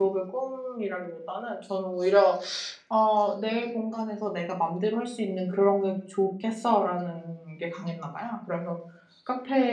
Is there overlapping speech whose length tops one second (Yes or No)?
No